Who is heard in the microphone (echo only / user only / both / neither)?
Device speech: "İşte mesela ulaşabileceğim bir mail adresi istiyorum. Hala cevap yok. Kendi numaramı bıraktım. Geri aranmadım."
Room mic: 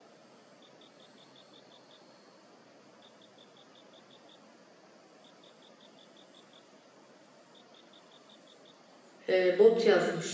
user only